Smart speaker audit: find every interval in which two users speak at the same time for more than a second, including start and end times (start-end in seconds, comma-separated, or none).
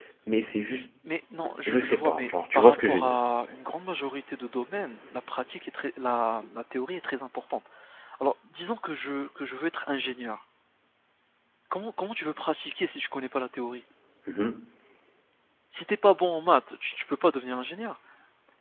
1.7-3.2